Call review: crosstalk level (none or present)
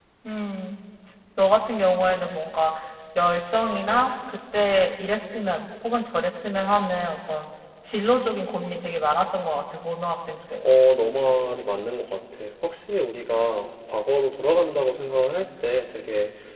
none